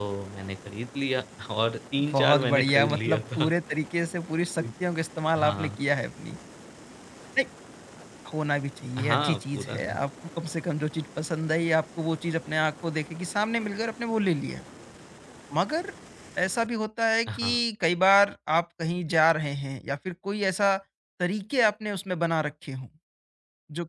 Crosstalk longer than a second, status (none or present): present